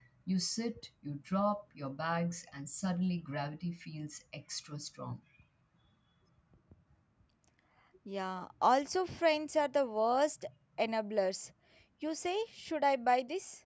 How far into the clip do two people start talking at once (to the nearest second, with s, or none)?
none